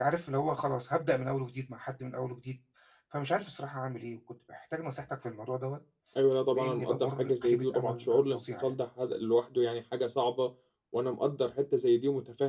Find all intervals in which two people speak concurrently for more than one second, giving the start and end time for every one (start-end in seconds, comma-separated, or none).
6.5-8.7